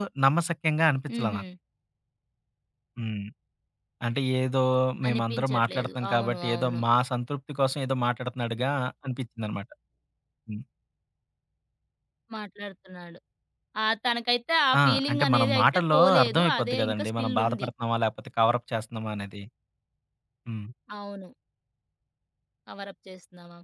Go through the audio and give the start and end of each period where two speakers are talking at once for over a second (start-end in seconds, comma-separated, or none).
5.1-6.8, 14.8-17.7